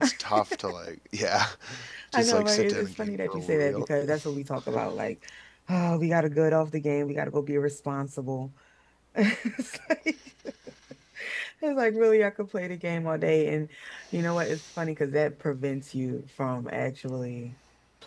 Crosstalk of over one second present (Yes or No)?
Yes